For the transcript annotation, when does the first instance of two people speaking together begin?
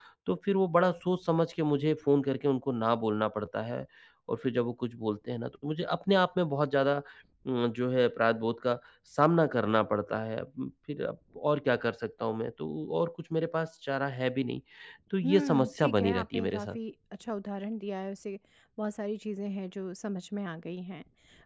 15.2 s

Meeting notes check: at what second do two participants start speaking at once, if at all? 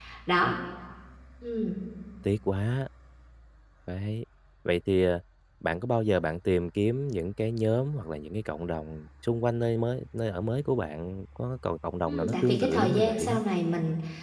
12.1 s

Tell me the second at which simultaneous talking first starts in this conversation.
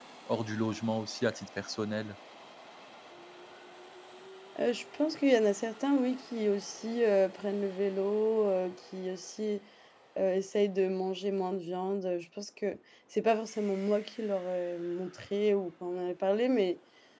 none

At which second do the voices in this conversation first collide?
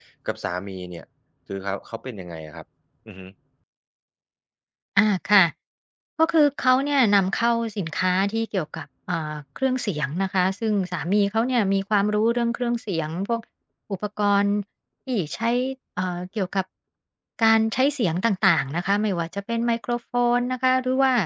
none

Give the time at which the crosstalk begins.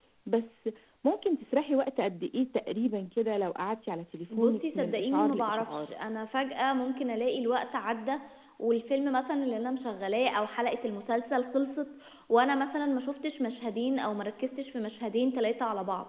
4.3 s

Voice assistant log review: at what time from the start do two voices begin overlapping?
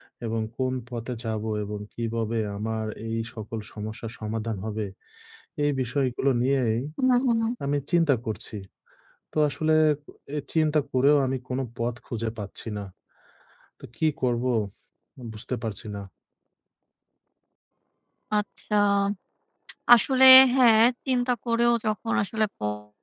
none

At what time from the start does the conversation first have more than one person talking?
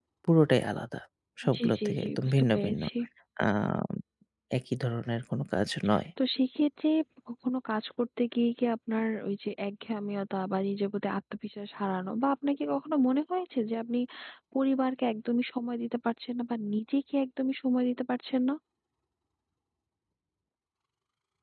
1.5 s

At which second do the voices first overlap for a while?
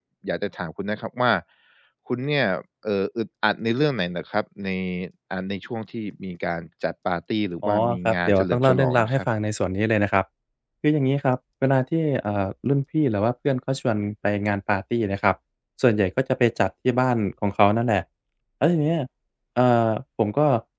7.6 s

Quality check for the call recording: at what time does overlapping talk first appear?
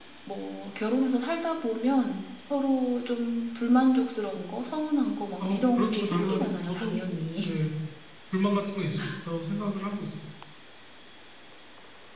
5.4 s

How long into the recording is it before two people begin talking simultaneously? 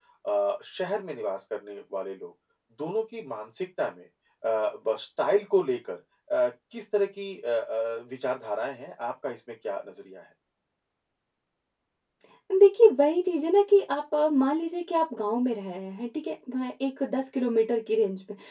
none

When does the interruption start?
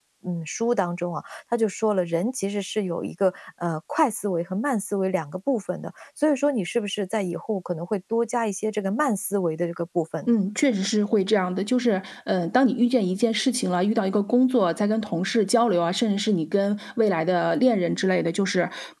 none

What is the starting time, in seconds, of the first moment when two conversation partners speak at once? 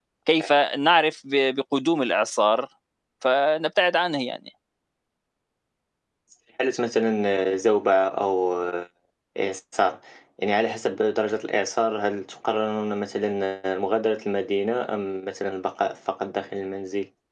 none

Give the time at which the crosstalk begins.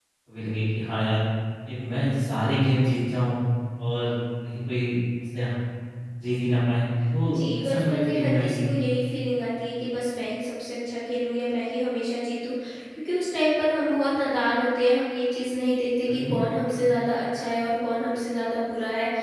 7.3 s

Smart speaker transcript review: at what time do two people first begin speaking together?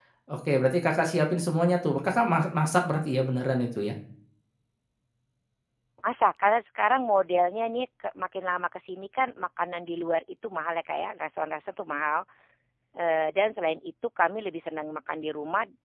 none

